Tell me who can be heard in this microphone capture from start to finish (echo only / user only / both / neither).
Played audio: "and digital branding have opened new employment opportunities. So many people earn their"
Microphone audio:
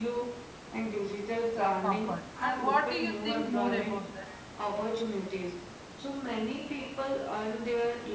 both